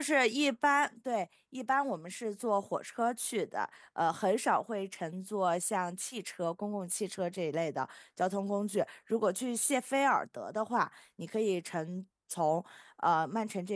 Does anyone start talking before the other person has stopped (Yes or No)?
No